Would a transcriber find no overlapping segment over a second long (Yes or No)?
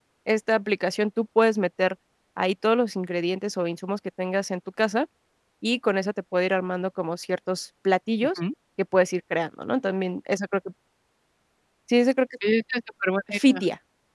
Yes